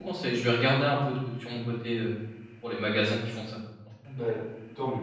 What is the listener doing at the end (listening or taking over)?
taking over